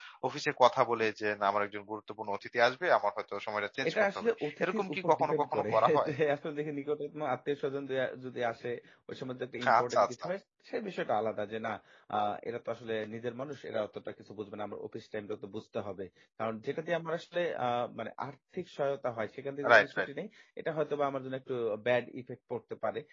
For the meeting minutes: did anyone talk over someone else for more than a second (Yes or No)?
Yes